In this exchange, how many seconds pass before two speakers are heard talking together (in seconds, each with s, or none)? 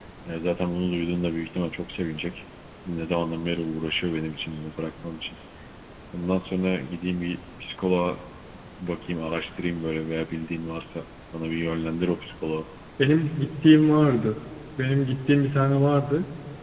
none